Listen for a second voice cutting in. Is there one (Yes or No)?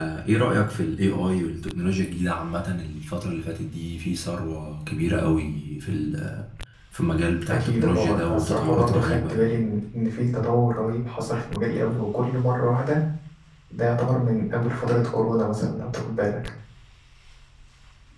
Yes